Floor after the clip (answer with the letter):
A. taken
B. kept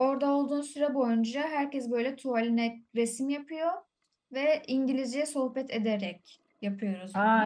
A